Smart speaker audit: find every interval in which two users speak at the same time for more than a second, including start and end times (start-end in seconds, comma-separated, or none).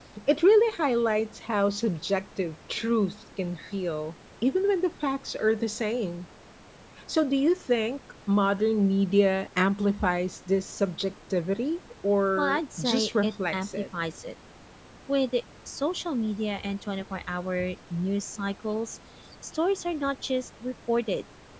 12.4-13.8